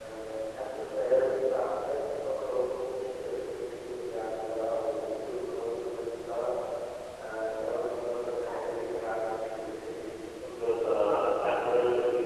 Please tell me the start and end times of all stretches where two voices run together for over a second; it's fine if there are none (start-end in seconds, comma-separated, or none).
none